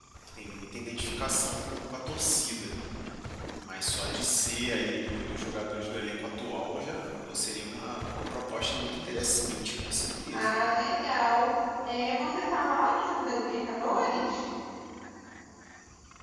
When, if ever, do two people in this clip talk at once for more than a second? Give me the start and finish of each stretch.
none

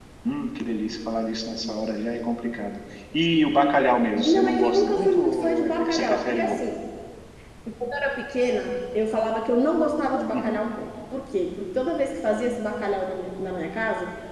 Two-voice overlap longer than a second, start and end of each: 4.2-6.6

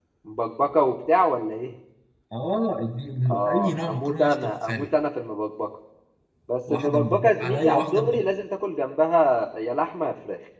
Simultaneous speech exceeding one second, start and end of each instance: 3.3-4.9, 6.7-8.2

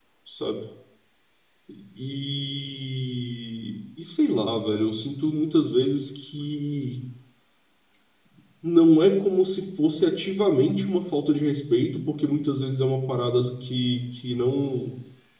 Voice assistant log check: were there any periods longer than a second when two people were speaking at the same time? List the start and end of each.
none

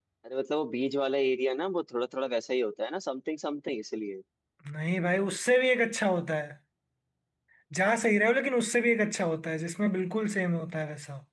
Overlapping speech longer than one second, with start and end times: none

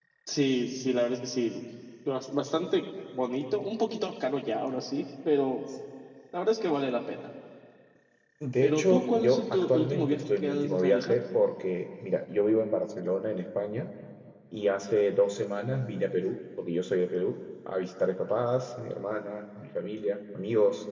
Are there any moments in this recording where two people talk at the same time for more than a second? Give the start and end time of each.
8.6-11.2

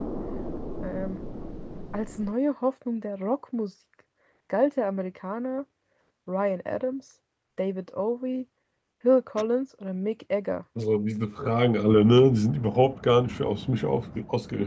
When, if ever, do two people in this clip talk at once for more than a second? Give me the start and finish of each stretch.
none

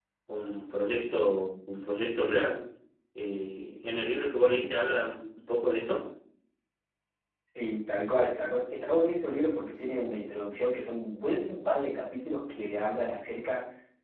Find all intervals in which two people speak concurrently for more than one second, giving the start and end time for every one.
none

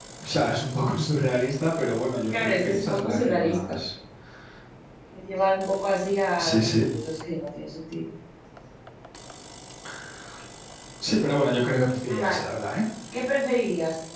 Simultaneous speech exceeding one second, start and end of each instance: 2.3-3.8

